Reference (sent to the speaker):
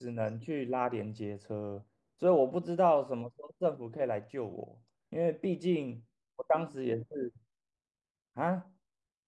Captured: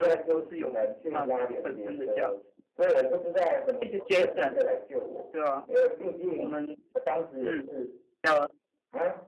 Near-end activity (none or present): present